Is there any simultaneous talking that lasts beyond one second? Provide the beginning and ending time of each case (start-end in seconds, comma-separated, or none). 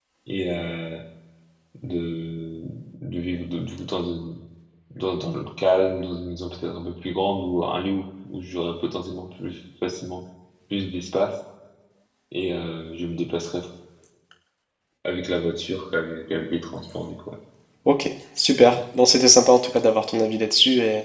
none